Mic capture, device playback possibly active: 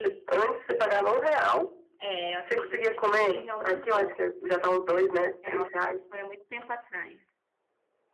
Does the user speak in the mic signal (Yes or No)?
Yes